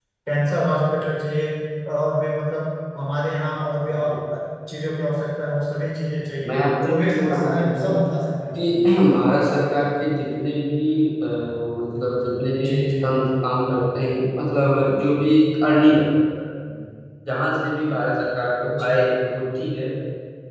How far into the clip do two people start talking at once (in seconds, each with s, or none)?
6.5 s